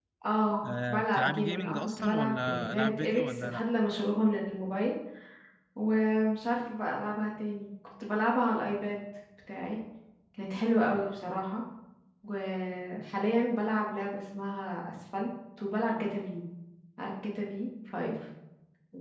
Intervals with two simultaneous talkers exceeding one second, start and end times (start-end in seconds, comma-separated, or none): 0.6-3.6